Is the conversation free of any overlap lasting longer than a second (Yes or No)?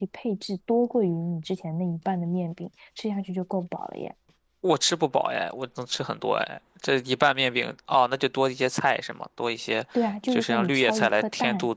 No